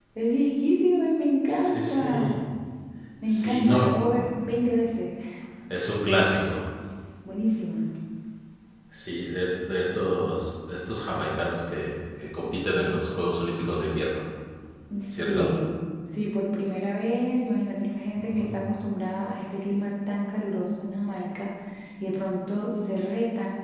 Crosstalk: present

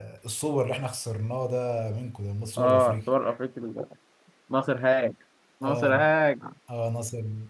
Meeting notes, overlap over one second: none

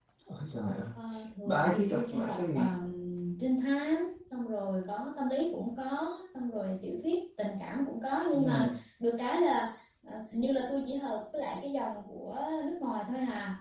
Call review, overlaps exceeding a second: present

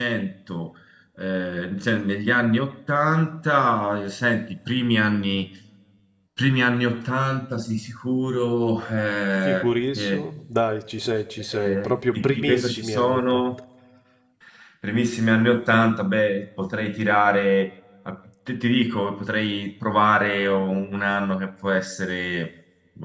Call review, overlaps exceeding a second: present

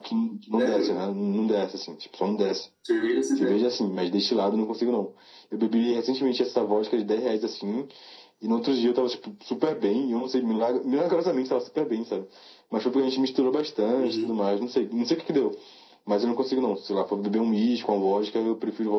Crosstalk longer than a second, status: none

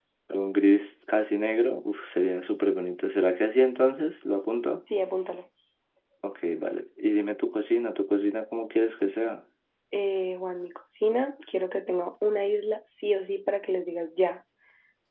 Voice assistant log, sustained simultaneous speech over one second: none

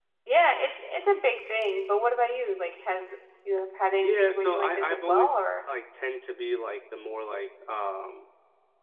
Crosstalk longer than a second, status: present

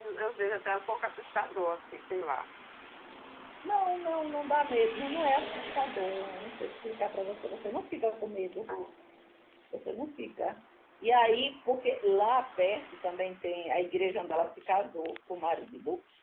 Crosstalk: none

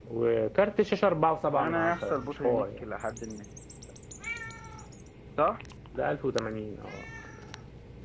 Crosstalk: present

